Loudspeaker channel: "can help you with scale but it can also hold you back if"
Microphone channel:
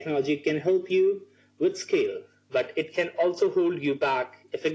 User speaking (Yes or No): No